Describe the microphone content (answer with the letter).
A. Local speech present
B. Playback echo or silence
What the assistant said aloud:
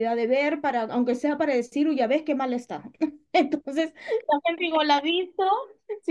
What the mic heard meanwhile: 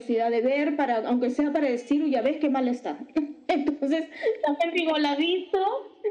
B